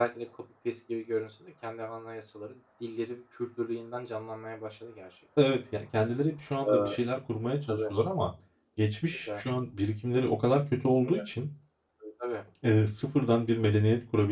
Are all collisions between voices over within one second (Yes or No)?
Yes